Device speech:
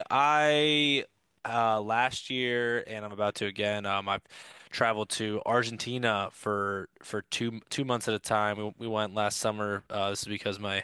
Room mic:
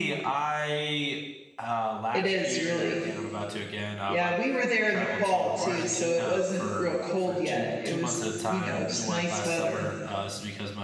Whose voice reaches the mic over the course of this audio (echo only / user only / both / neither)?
both